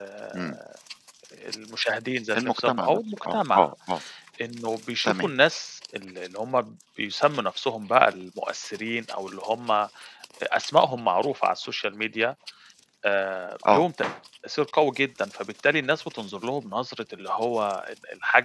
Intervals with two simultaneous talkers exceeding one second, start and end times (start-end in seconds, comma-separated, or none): 2.4-3.7